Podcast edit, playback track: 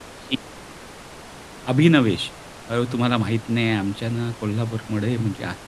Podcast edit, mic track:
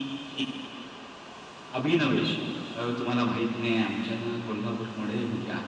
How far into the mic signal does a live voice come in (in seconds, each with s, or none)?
none